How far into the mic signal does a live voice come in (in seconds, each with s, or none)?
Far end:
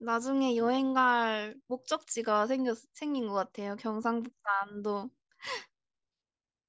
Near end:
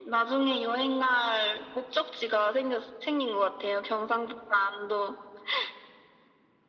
none